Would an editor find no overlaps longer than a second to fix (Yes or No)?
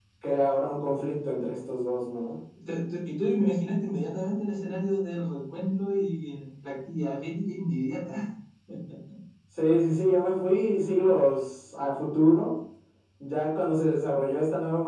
Yes